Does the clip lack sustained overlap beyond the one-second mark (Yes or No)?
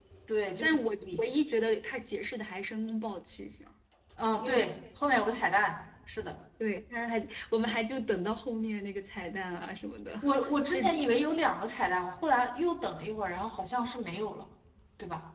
Yes